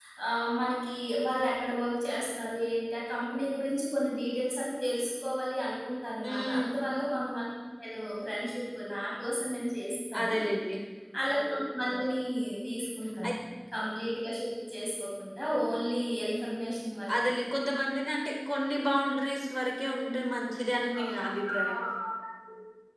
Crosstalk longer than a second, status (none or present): none